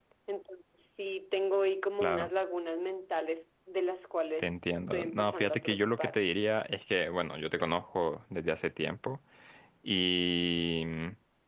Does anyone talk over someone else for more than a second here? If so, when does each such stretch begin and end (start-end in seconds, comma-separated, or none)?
4.4-6.2